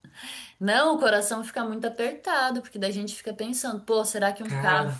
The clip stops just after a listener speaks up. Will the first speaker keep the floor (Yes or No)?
Yes